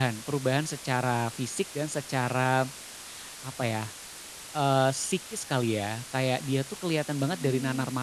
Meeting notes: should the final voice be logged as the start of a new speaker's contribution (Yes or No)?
No